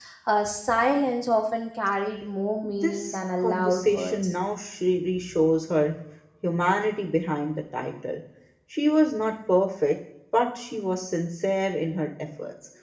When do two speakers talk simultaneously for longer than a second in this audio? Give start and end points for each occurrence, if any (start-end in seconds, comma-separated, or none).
2.6-4.3